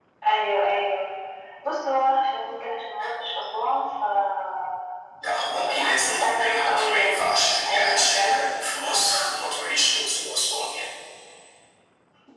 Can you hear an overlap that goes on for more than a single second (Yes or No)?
Yes